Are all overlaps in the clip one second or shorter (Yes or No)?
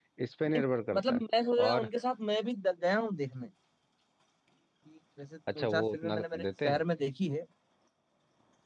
No